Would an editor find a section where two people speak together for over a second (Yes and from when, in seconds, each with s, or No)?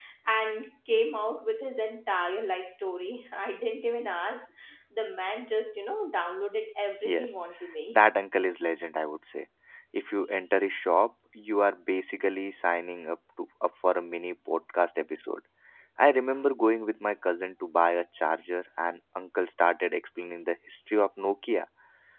No